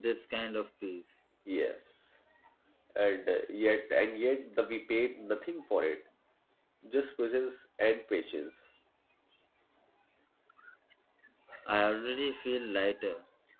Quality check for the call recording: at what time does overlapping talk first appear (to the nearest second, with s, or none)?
none